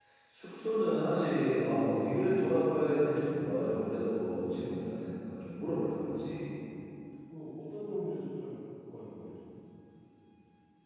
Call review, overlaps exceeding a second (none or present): none